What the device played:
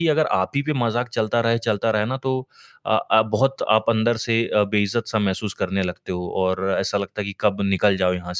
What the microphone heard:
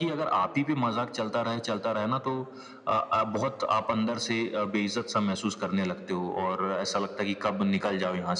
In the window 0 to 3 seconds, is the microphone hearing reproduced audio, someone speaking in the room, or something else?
echo only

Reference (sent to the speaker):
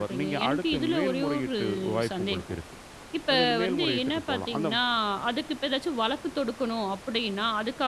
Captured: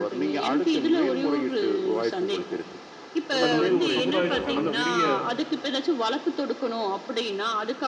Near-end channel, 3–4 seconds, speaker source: both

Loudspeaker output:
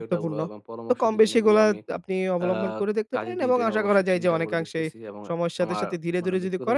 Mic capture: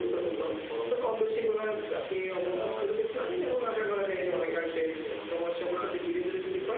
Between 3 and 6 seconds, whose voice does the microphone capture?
echo only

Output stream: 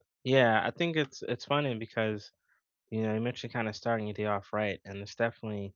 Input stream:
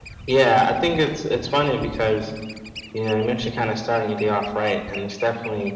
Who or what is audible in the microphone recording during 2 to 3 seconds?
echo only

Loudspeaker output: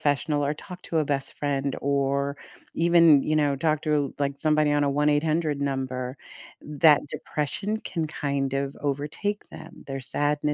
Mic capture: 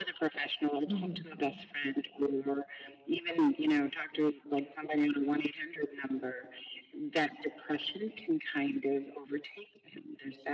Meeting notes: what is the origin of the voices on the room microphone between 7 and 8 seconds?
echo only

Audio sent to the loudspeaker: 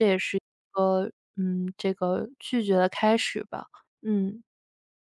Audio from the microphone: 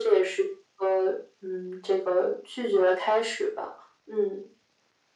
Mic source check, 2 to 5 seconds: echo only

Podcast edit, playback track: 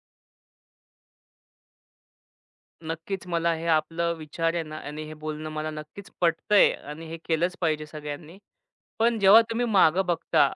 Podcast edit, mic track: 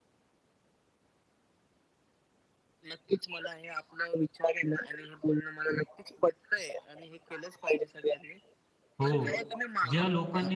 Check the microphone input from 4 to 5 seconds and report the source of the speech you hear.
echo only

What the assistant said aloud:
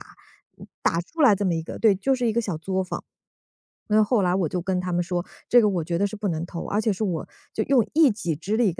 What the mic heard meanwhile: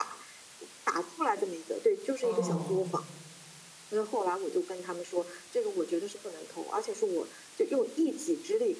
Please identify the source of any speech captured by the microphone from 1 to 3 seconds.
both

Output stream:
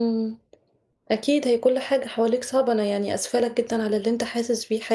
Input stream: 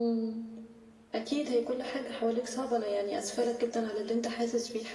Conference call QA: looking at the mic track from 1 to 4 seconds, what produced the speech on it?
echo only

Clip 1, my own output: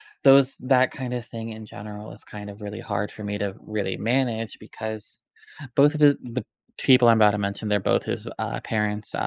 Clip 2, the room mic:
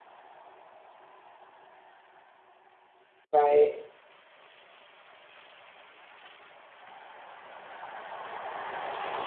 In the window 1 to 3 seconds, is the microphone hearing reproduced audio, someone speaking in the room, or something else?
neither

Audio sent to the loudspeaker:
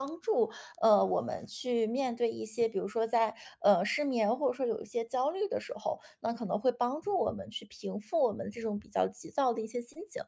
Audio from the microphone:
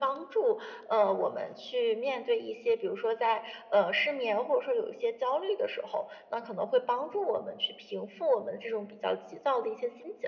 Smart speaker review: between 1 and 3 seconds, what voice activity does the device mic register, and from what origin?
echo only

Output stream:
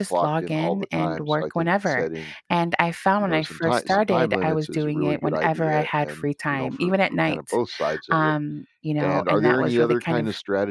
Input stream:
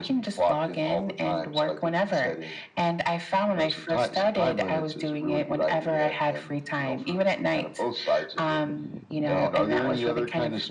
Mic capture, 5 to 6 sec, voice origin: echo only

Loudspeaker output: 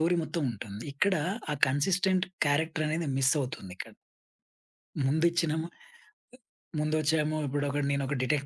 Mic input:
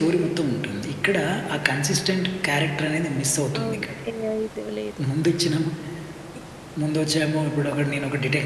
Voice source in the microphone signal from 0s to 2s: echo only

